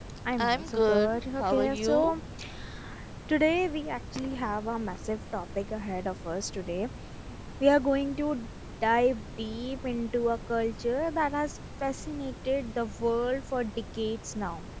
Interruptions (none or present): present